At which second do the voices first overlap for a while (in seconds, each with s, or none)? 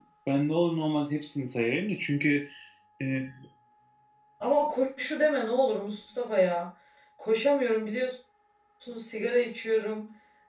none